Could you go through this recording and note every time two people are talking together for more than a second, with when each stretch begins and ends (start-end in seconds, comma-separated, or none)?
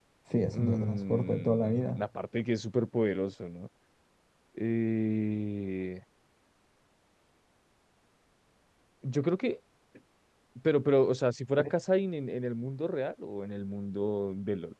0.5-2.0